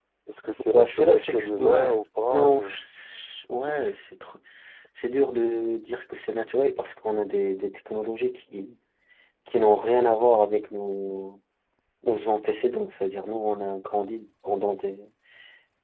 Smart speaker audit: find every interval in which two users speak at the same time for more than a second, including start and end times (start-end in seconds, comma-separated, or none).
0.6-2.6